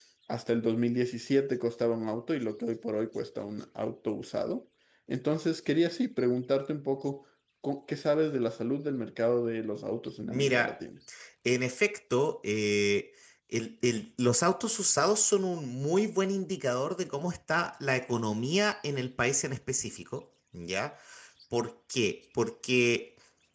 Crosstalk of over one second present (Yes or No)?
No